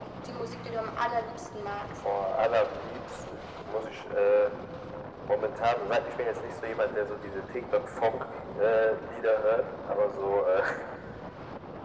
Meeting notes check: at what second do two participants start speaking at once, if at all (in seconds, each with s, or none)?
none